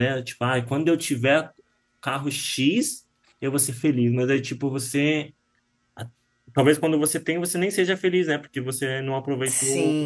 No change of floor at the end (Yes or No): No